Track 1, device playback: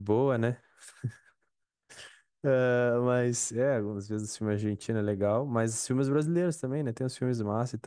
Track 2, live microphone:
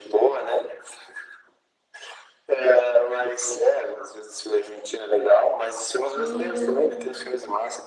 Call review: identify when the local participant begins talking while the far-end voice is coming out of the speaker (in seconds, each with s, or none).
6.1 s